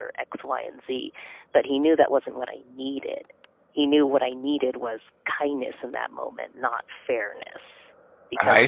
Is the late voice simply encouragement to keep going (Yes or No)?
No